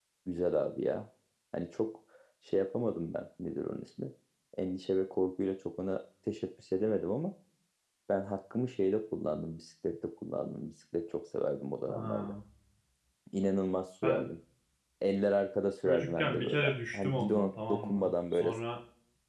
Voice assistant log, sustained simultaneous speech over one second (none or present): present